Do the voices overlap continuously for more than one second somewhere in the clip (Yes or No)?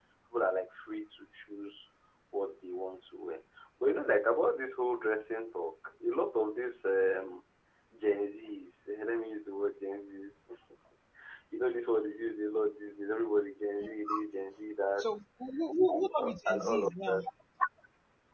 Yes